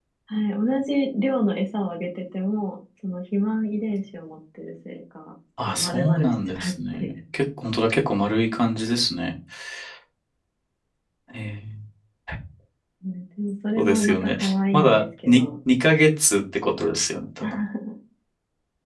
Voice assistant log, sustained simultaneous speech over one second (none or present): present